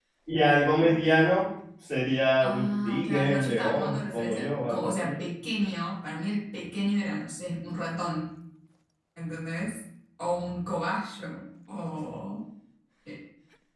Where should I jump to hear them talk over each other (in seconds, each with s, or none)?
2.4 s